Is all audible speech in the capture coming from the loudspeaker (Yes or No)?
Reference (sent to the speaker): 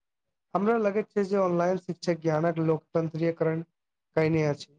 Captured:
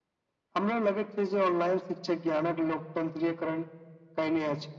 Yes